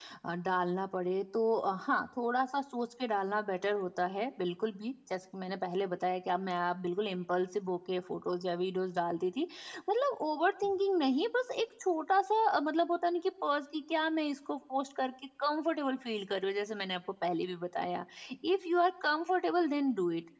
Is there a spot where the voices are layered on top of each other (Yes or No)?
No